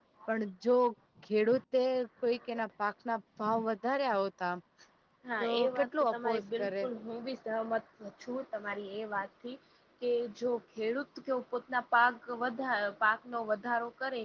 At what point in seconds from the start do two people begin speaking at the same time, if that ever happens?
5 s

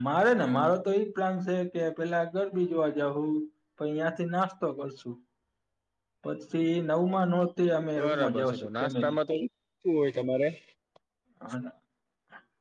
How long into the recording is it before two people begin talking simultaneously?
8 s

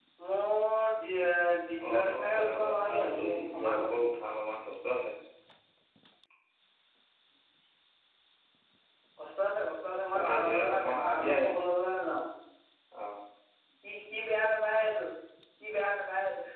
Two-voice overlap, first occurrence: 2 s

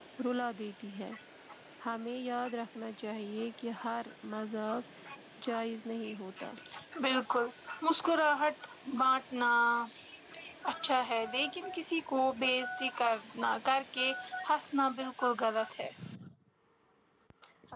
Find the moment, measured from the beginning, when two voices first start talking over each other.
none

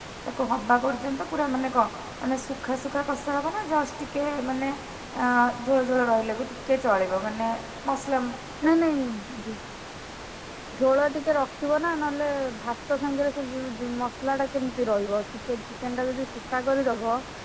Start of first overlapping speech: none

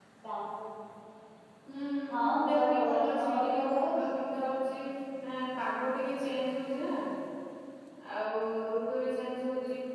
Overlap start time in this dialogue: 2 s

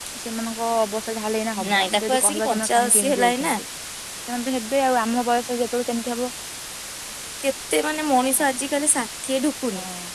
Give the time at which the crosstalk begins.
2 s

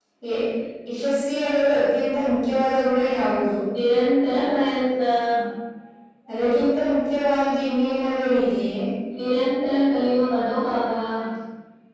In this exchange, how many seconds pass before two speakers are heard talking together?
none

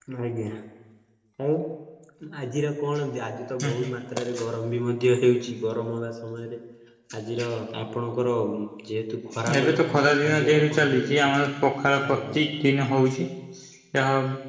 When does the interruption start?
10 s

